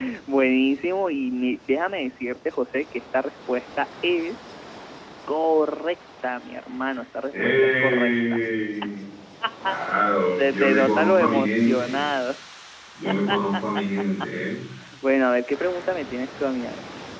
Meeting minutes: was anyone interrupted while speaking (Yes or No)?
Yes